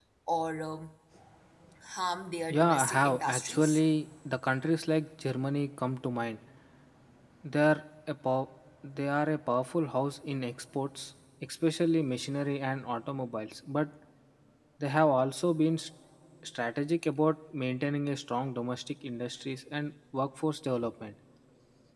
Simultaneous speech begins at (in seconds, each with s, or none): 2.5 s